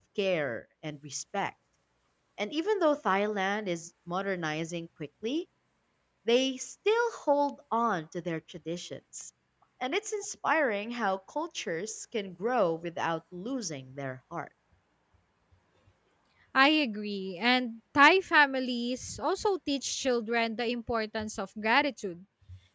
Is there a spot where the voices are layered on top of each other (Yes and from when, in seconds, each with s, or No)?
No